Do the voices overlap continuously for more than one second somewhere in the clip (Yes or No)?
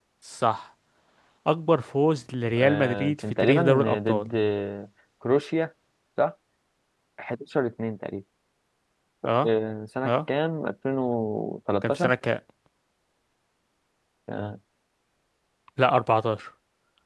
Yes